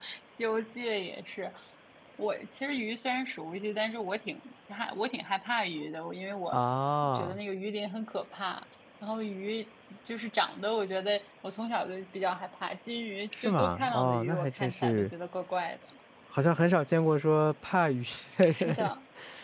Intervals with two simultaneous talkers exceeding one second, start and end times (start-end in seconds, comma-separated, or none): 13.4-15.1